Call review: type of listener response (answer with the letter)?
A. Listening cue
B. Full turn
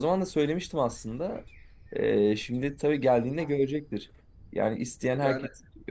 A